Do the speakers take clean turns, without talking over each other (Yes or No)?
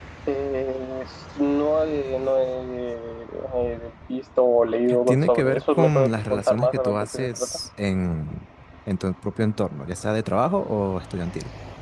No